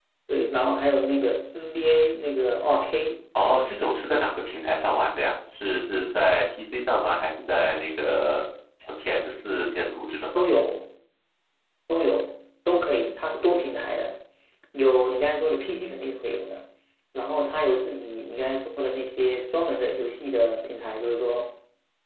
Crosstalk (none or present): none